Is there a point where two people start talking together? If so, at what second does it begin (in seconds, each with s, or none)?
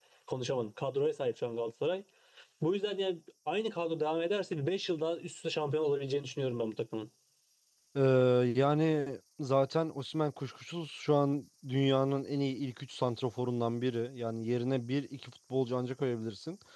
none